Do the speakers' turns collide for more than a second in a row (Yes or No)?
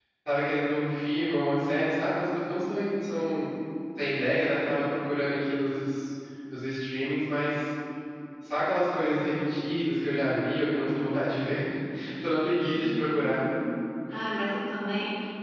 No